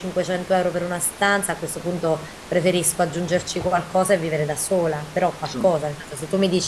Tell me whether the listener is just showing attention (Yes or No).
Yes